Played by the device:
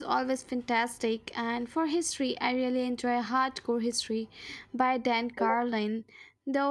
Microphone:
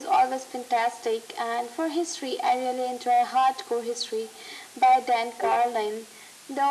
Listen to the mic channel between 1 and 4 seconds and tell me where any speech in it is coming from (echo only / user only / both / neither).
echo only